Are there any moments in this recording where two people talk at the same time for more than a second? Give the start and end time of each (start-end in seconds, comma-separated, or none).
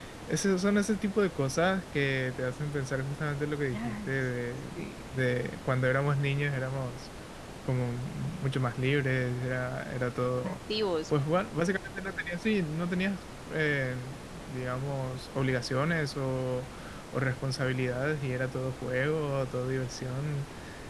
none